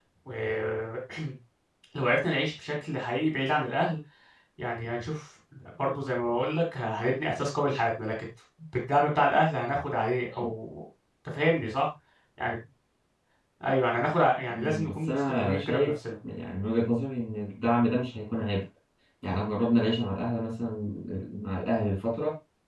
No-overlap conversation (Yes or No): No